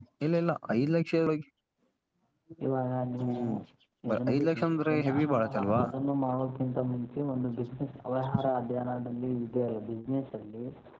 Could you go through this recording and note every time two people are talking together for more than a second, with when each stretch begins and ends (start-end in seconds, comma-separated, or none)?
4.1-5.8